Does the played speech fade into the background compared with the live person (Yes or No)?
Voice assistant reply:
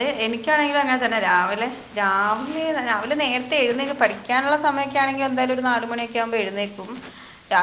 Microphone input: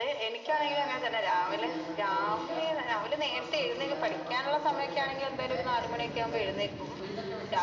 No